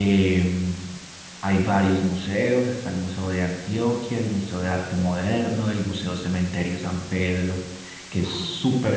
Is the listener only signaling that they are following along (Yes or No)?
Yes